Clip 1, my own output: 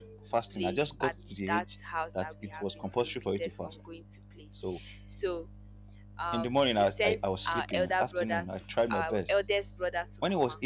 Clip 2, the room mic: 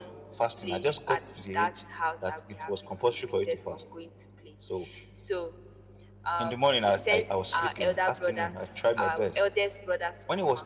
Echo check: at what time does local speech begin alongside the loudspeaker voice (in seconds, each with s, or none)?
none